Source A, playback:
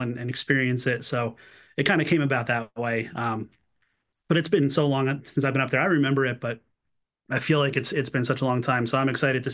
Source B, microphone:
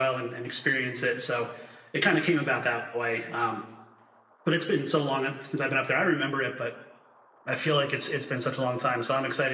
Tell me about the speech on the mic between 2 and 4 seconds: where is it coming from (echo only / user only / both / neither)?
echo only